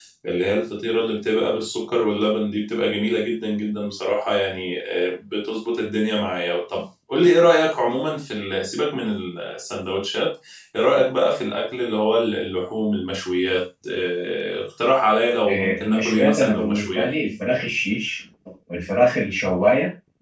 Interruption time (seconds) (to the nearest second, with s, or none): 15 s